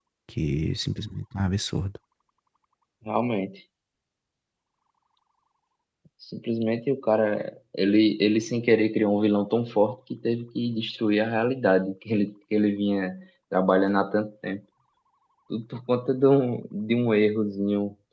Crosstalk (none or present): none